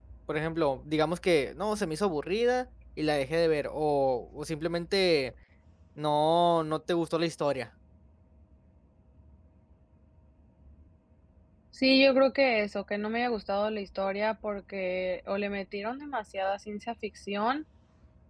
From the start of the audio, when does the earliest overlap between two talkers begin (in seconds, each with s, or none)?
none